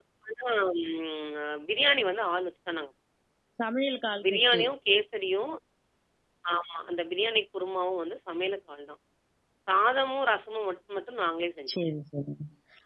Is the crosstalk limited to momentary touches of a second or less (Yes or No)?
Yes